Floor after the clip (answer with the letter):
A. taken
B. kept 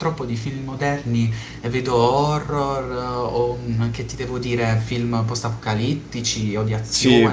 A